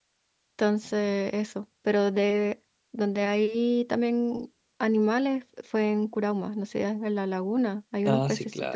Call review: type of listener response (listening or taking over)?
taking over